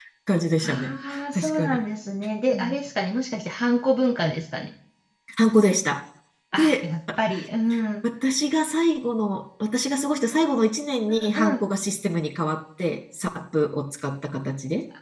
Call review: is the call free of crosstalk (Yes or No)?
No